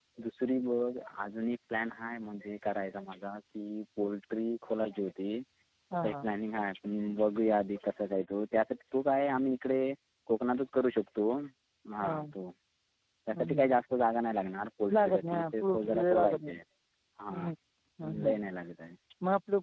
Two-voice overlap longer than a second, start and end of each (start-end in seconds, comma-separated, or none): 15.0-16.5